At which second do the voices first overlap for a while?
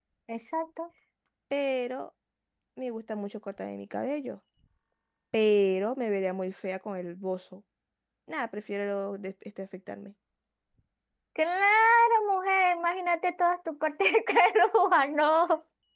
none

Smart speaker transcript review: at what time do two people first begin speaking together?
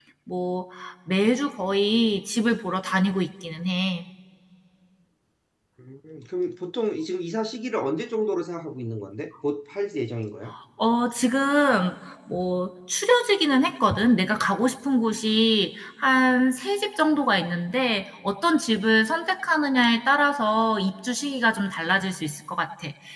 none

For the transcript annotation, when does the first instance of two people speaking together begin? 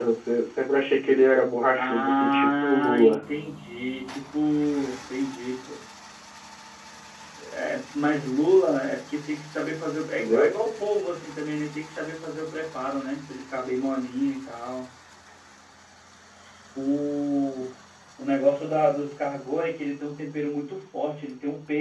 1.8 s

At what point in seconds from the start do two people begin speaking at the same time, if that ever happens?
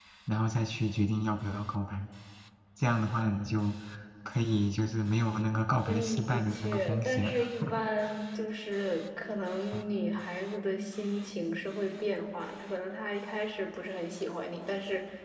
5.9 s

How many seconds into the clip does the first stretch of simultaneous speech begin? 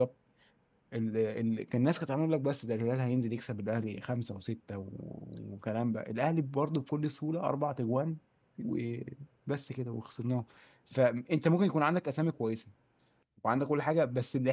none

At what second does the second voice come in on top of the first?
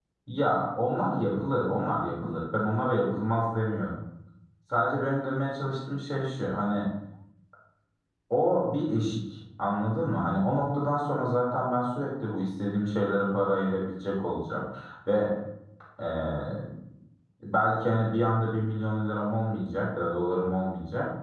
none

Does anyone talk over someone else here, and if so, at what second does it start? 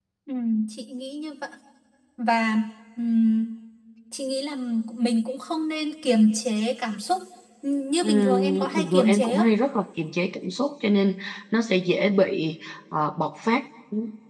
8.0 s

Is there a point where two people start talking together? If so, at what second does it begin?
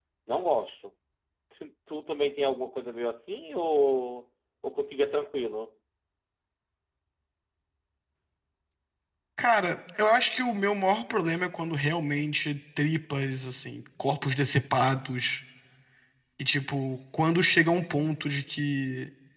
none

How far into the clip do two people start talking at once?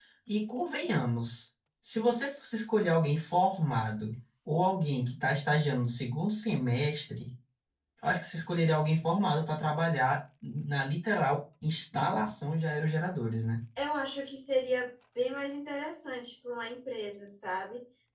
none

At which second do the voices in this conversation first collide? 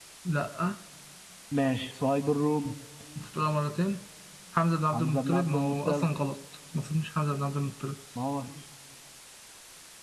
4.9 s

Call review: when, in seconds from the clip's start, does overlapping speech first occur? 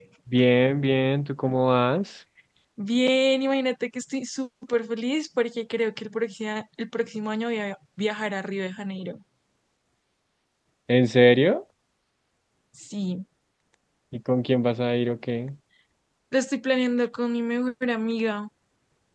none

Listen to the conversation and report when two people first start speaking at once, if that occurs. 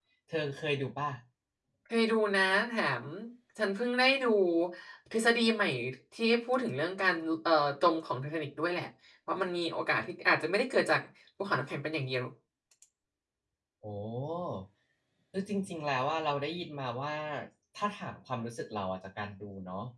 none

